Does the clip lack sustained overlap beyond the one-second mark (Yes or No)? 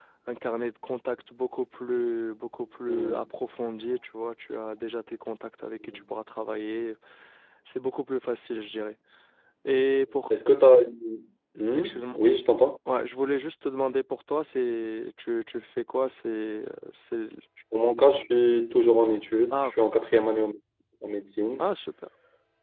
Yes